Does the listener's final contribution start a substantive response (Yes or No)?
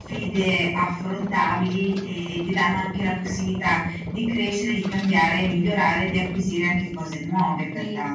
Yes